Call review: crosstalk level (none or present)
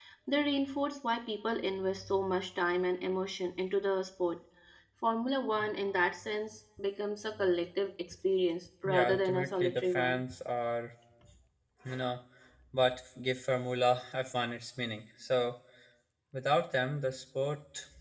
present